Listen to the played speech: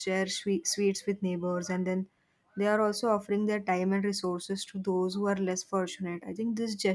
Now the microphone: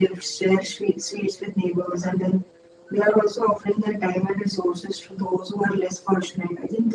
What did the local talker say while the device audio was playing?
none

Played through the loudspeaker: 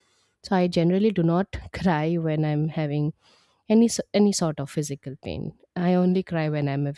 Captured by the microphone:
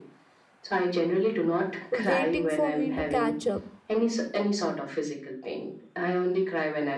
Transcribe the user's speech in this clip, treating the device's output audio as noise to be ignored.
waiting for me to catch up.

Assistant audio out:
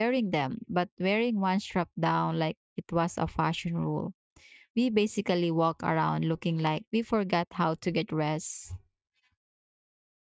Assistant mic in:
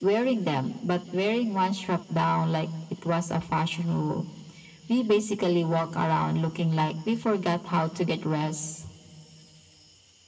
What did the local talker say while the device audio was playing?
none

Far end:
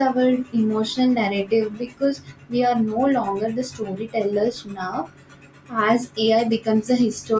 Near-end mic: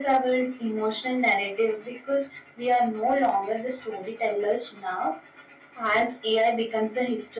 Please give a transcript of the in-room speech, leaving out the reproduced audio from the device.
none

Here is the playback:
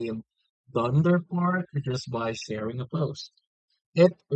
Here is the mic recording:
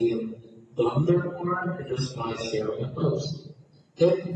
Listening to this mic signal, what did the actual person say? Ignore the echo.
none

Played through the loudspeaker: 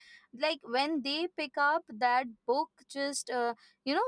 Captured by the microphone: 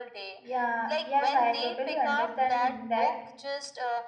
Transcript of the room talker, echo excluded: yeah yes i totally understand that

